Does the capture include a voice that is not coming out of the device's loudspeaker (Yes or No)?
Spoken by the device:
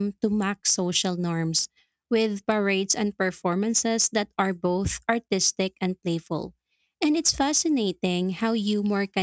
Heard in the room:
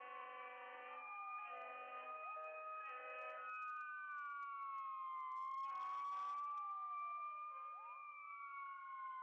No